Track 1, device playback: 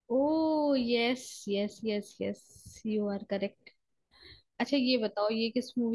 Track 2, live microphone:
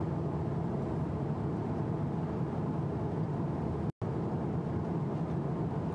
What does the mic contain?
neither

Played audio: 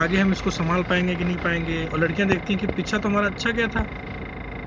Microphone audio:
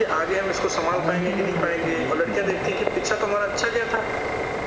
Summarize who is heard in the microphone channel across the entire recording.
both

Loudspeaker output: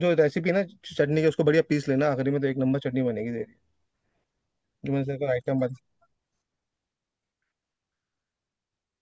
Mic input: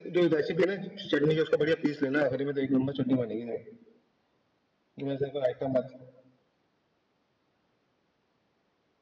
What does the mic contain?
echo only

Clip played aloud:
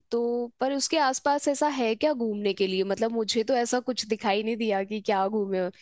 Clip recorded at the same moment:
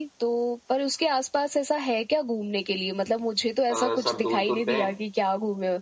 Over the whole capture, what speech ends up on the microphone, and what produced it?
both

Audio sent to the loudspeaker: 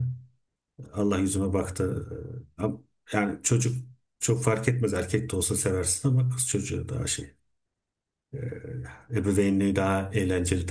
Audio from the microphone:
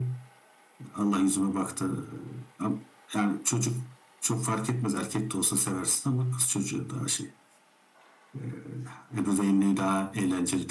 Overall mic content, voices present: echo only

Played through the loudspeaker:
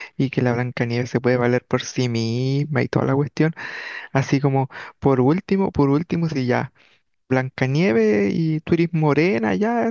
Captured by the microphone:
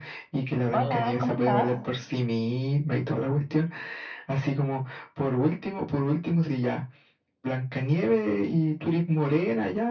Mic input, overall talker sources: both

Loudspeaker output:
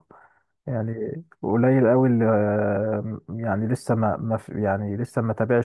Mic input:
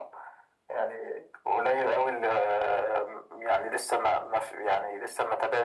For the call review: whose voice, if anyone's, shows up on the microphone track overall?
echo only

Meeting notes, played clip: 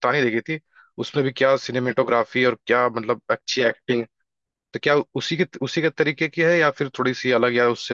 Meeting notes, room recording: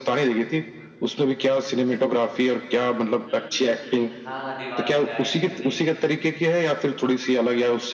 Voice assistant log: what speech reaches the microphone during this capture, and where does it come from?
both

